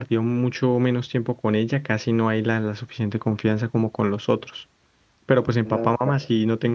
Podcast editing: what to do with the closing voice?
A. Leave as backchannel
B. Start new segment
A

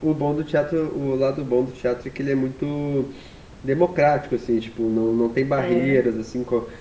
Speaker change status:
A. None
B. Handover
A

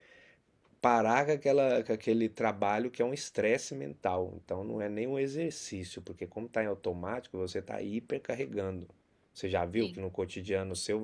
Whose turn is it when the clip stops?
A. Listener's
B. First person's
B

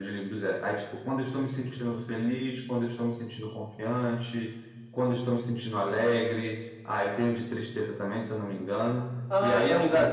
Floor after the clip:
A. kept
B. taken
B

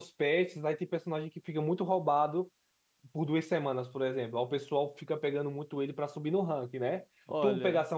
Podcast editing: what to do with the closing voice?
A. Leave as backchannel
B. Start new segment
A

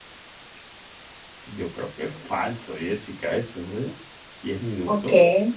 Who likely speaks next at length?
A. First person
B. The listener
B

